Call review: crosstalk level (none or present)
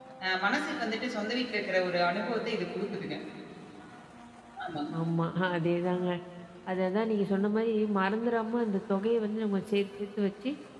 none